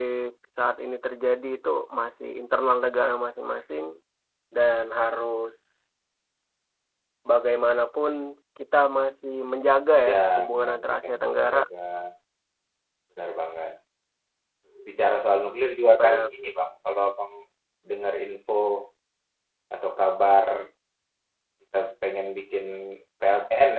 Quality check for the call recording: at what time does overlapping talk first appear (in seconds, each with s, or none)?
10.1 s